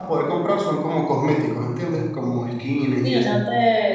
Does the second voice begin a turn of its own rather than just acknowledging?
Yes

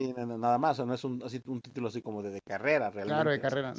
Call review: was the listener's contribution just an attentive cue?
No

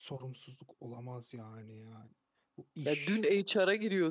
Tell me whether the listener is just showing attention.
No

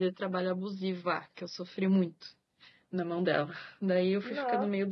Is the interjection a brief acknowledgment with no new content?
Yes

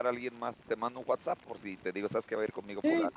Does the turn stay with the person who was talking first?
No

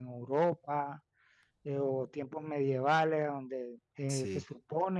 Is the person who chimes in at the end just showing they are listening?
Yes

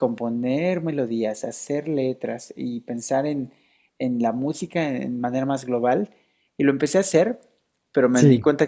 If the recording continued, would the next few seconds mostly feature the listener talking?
No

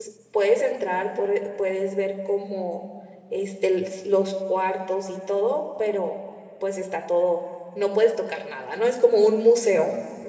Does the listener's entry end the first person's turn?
Yes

